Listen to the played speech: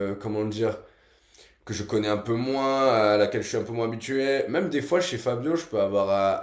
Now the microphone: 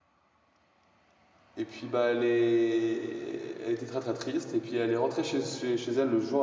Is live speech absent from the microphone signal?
No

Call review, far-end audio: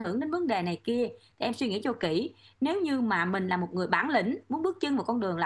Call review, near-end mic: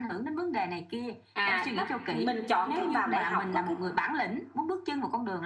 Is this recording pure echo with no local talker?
No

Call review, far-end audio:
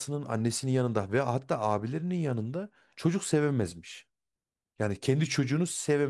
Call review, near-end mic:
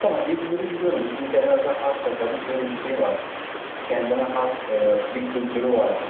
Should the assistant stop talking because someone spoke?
Yes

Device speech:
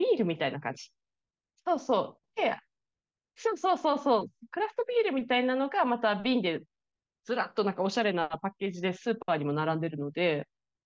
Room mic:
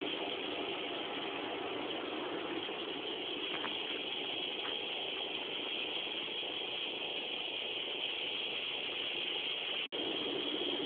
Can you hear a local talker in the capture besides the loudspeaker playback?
No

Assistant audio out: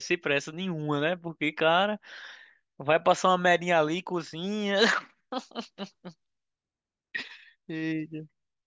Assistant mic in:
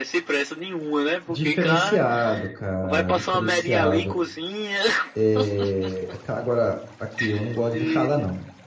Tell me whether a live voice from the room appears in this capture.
Yes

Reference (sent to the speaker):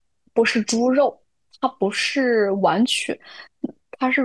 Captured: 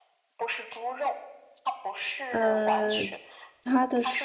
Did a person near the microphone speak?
Yes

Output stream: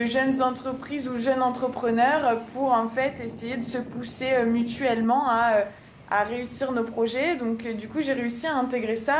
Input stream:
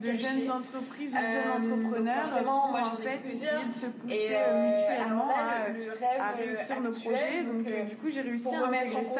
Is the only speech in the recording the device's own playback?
No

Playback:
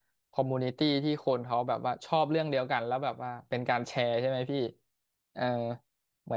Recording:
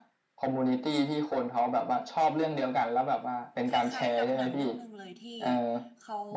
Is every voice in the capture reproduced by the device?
No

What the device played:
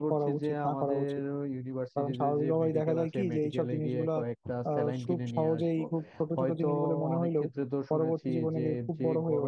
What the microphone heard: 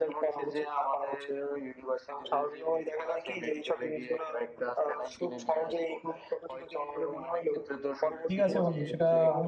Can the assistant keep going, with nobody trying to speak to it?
No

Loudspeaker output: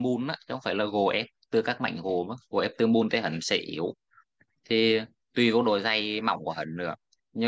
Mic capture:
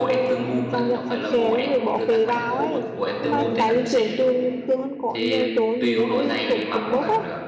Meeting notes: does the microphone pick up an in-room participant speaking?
Yes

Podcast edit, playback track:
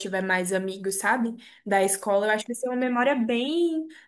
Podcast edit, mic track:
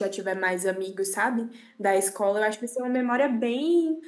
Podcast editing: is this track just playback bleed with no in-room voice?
Yes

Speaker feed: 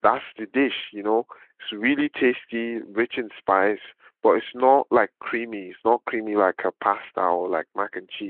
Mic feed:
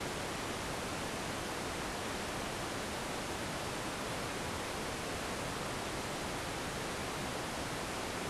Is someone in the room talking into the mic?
No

